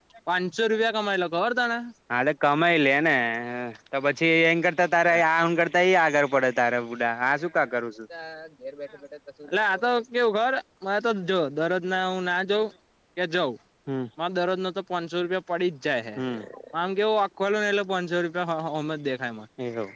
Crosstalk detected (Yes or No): No